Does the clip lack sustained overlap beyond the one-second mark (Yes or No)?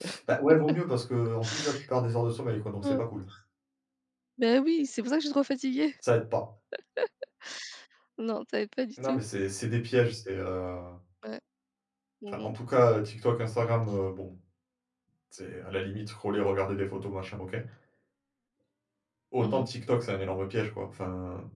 Yes